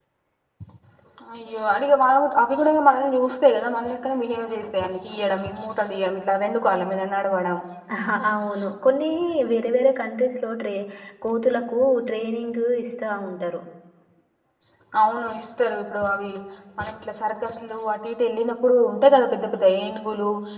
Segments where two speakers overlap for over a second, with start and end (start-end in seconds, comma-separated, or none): none